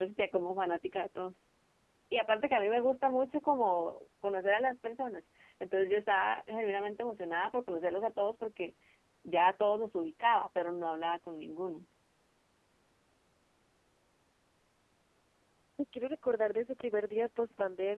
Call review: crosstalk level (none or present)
none